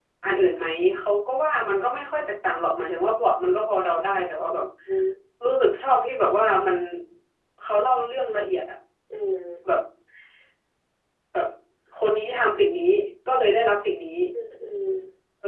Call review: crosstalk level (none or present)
none